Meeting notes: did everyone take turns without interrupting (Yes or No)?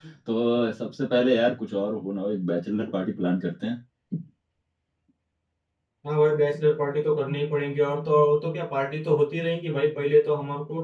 Yes